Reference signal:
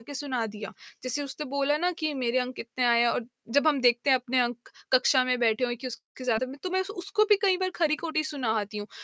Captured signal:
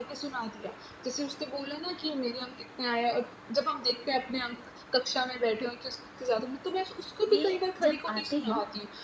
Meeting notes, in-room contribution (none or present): present